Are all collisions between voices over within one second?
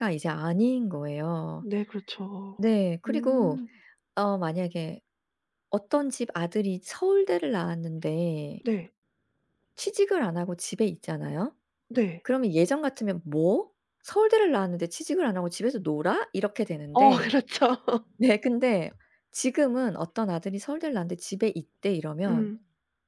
Yes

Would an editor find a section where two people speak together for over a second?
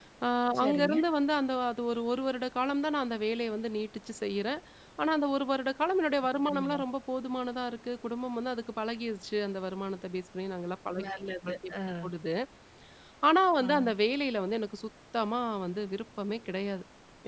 No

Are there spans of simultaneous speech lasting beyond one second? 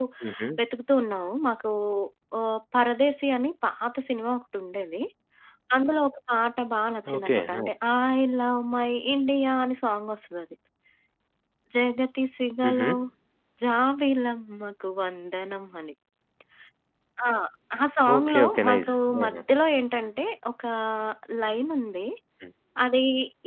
Yes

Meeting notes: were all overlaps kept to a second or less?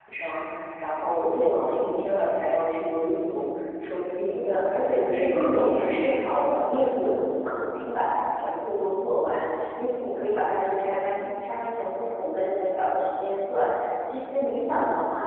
No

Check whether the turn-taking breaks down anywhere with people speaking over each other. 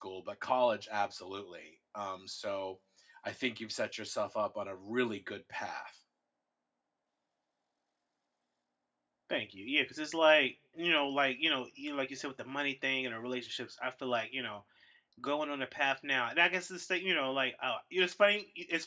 No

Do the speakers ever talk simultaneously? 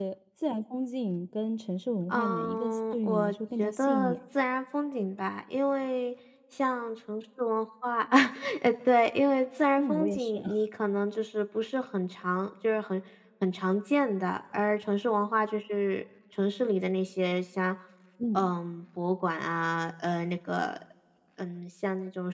Yes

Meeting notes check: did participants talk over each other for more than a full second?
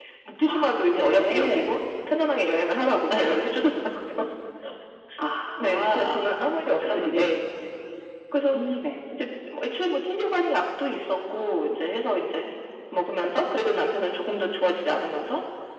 Yes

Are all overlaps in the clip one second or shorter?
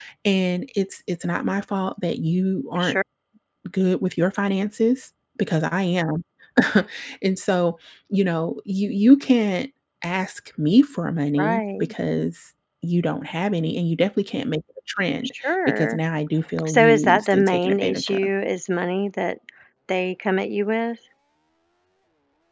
No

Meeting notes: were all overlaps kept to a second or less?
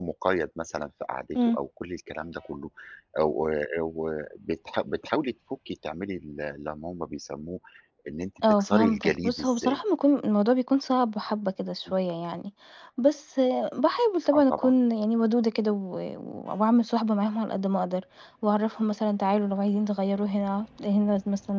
No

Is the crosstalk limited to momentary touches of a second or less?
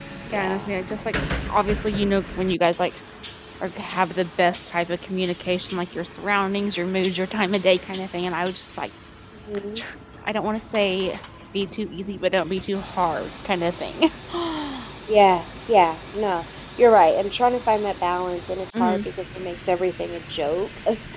Yes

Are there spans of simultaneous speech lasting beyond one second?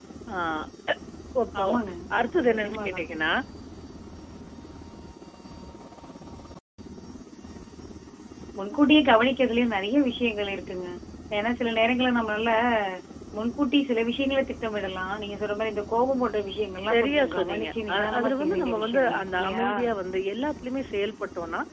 Yes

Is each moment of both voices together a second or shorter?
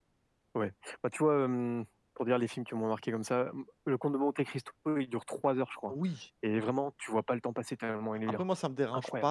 Yes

